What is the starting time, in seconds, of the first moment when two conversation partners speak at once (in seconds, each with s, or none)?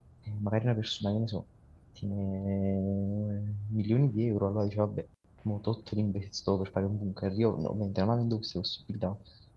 none